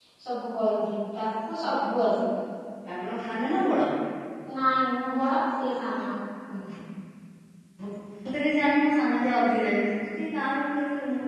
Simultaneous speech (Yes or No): No